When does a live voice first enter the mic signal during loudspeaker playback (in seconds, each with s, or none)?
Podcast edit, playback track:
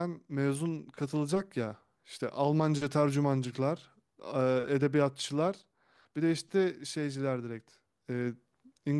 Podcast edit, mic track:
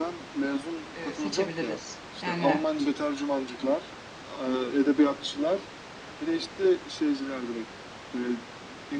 0.9 s